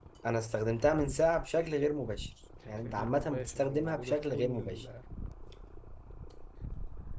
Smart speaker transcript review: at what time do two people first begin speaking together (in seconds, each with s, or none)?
2.8 s